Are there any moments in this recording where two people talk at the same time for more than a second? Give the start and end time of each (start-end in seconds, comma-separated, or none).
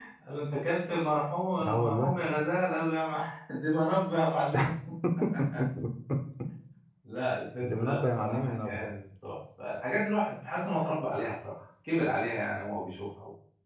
7.6-8.9